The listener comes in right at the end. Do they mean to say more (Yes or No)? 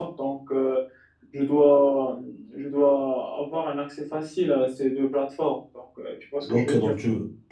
Yes